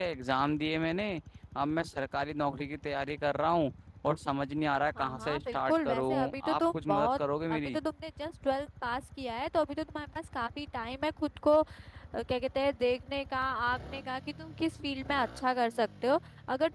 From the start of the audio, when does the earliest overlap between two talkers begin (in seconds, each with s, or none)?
5.0 s